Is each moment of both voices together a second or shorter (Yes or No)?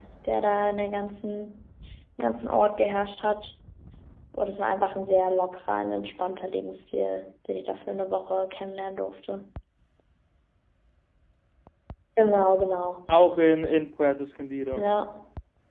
Yes